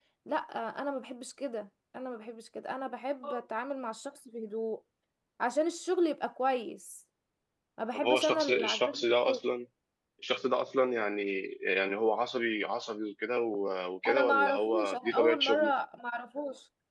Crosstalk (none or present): present